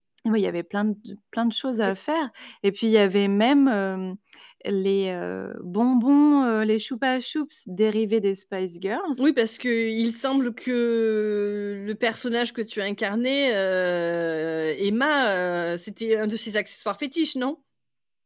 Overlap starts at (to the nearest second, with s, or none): none